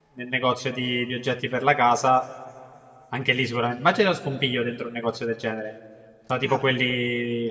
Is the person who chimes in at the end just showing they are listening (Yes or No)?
Yes